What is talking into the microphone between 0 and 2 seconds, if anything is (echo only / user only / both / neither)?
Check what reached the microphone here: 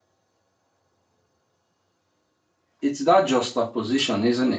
neither